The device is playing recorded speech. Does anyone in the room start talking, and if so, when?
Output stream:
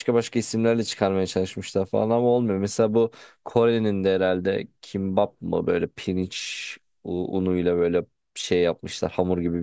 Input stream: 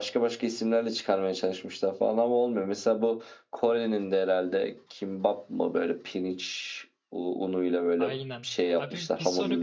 8.0 s

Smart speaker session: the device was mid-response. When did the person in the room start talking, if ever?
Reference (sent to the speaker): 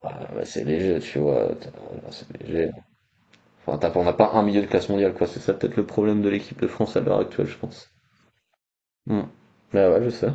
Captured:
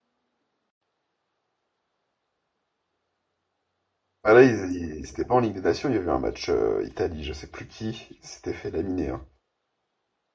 4.2 s

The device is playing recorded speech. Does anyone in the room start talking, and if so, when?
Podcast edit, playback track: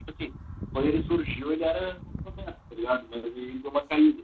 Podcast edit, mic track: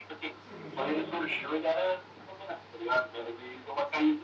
0.4 s

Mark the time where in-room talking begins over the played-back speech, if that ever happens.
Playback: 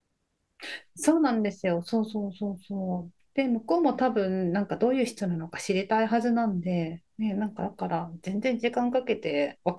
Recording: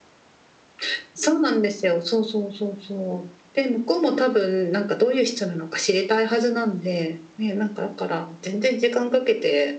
none

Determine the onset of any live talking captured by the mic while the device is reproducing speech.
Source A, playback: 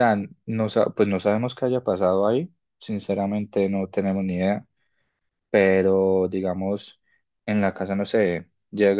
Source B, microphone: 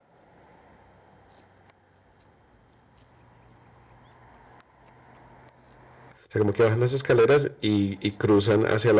6.3 s

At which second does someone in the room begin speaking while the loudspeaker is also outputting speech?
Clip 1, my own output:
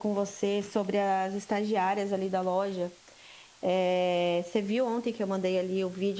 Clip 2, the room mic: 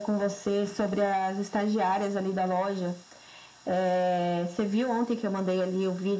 none

